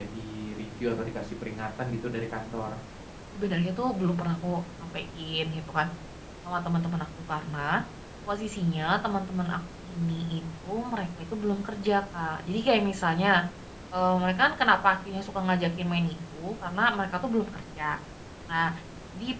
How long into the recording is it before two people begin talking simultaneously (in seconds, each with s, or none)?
none